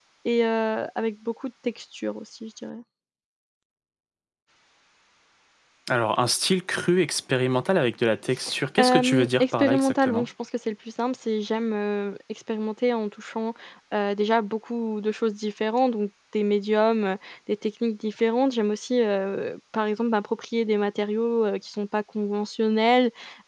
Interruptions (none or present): present